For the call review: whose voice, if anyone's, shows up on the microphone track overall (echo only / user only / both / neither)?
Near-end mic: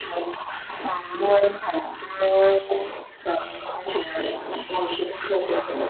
echo only